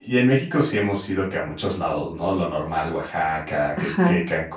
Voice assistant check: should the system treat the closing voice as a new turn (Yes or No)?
No